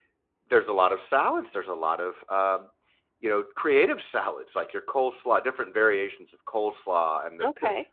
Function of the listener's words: listening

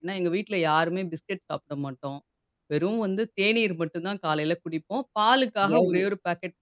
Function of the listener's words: listening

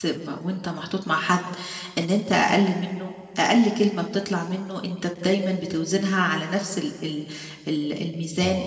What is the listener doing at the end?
listening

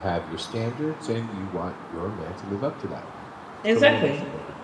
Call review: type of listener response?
taking over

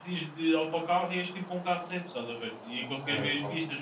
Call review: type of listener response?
listening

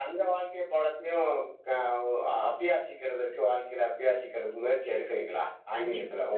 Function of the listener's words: taking over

